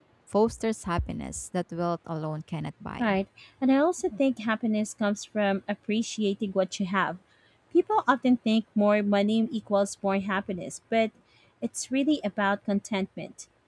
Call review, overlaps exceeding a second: none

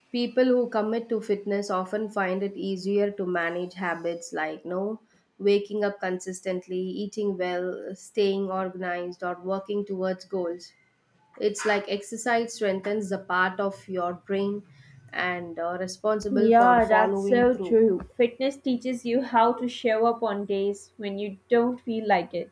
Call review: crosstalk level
present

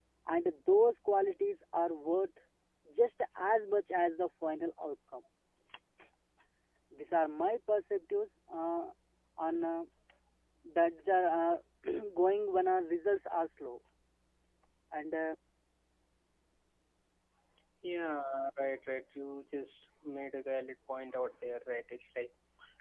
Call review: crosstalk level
none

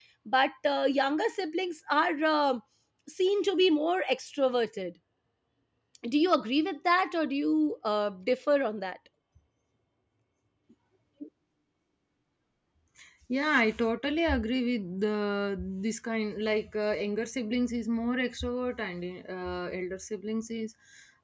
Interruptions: none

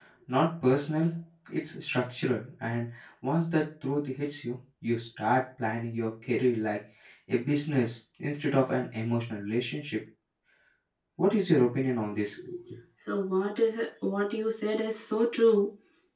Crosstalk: none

